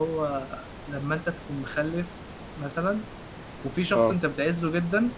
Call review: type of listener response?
listening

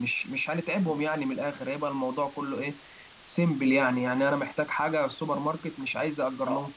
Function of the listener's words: taking over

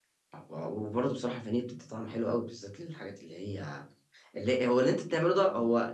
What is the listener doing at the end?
listening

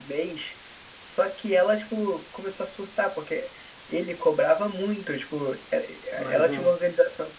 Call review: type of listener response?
listening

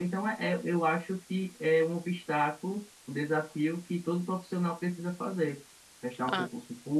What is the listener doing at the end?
listening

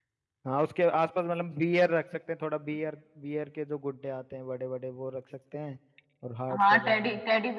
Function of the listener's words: taking over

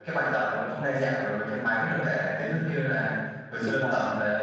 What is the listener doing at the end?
listening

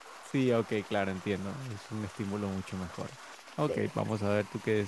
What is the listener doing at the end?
listening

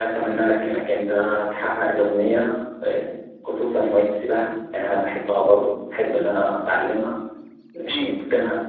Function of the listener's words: listening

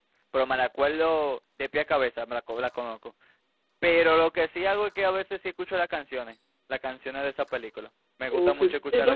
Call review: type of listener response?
taking over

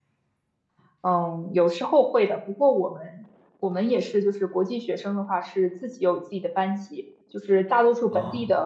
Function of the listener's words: listening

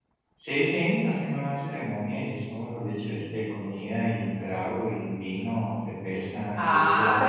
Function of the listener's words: taking over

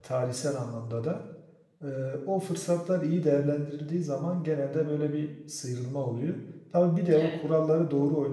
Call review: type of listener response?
listening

